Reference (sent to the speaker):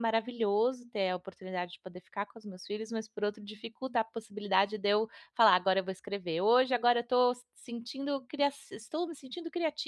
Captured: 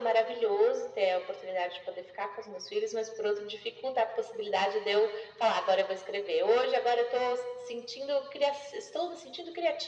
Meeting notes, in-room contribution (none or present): none